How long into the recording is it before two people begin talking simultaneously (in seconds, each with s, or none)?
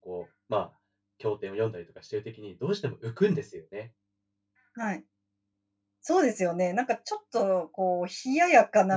none